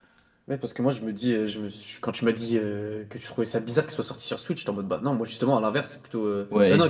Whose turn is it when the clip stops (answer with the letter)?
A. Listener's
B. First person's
A